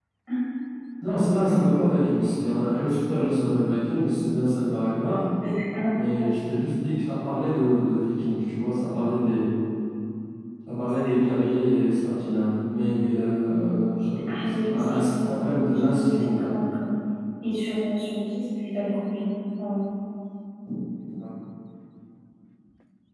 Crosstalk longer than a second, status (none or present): present